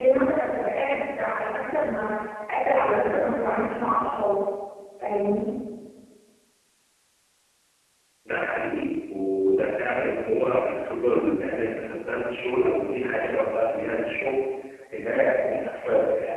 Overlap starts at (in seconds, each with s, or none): none